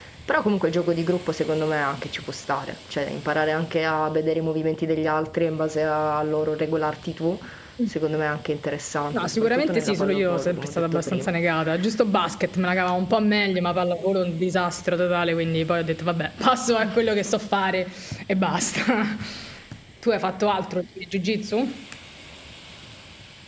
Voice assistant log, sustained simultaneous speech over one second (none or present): present